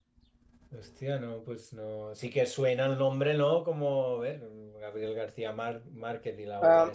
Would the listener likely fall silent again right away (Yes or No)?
No